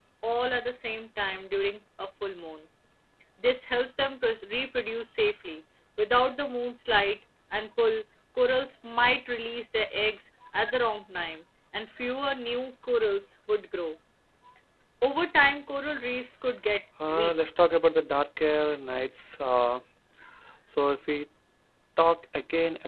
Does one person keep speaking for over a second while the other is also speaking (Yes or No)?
No